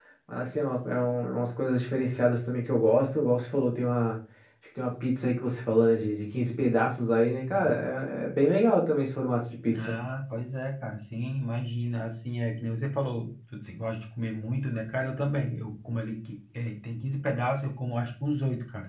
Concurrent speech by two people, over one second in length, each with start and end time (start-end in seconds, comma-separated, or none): none